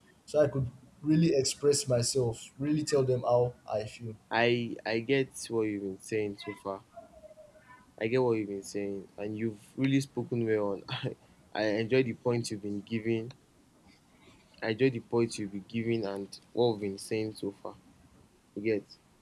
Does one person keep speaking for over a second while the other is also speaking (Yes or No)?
No